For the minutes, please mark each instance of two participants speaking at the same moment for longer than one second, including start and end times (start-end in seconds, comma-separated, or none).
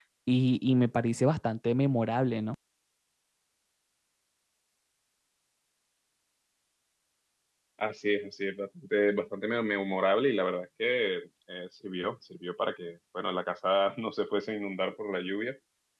none